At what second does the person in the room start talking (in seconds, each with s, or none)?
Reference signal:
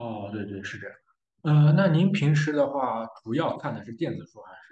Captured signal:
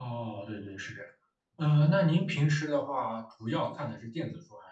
none